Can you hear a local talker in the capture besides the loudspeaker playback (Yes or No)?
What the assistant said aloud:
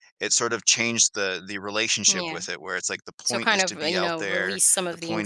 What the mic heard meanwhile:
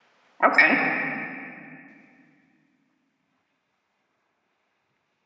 Yes